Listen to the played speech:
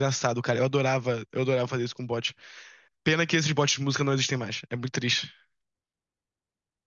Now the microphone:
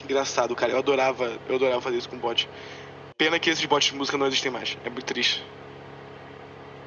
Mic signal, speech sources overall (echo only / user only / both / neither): echo only